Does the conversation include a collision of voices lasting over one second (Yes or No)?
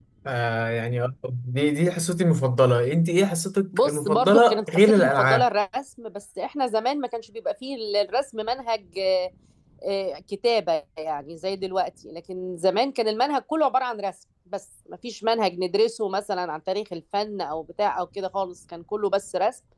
Yes